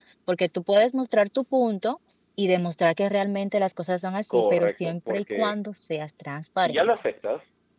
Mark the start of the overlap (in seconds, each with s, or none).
4.3 s